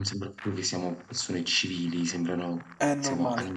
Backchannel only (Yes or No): No